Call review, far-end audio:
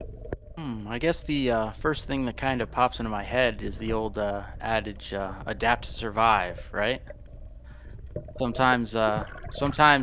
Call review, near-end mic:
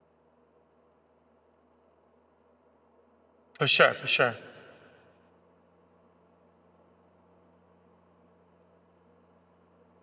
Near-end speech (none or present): present